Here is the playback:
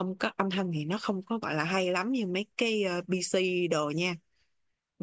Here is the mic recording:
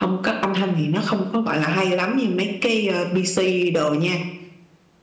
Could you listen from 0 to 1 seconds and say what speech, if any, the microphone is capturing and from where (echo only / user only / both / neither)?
echo only